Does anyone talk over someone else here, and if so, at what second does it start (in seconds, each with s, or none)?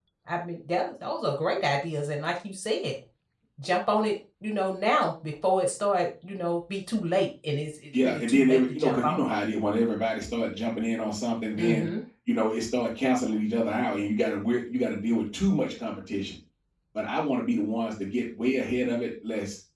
8.0 s